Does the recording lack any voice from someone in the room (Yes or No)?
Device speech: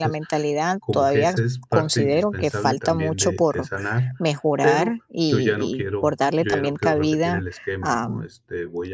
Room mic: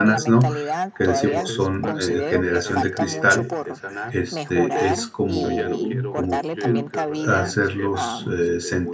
No